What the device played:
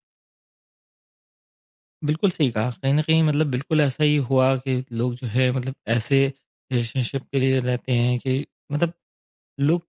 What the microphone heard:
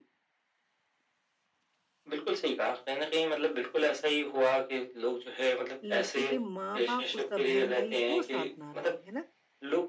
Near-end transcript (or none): लड़के के माँ-बाप, उसका बहन-भाई वो साथ ना रहे। है ना?